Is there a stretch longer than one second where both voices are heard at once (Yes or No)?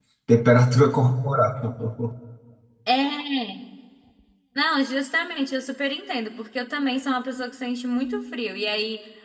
No